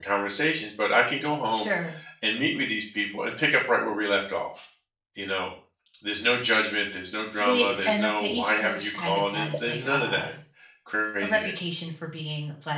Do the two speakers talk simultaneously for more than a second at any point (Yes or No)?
Yes